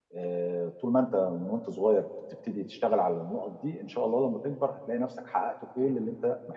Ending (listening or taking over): listening